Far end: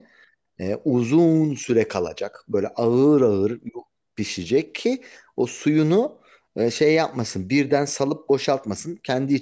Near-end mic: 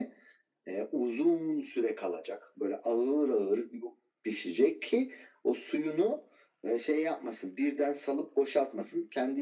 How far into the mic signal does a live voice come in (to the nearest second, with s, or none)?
none